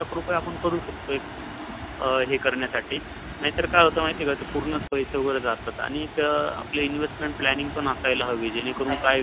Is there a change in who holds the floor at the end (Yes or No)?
No